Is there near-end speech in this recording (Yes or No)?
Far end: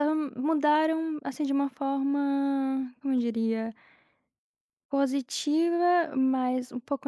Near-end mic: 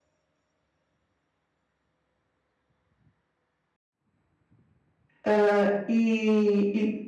Yes